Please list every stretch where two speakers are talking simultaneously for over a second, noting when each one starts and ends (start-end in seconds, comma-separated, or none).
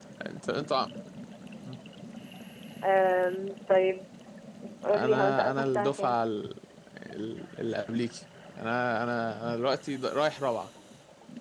4.9-6.2